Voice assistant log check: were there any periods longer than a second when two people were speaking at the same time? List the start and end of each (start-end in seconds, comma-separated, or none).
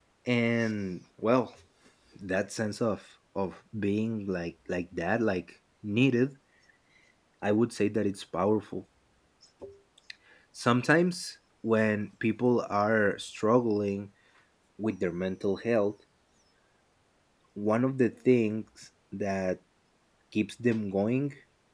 none